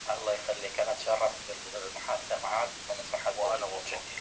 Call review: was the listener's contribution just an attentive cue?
Yes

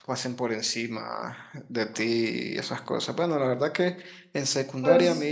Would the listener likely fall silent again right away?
Yes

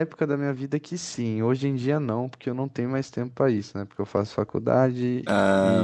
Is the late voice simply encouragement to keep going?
Yes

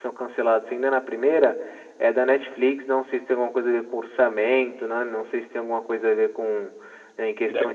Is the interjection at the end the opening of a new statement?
No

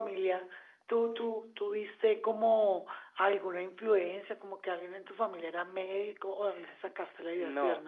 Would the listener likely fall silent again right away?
No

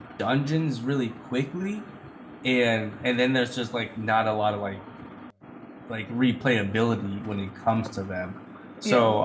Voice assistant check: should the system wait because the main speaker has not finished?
Yes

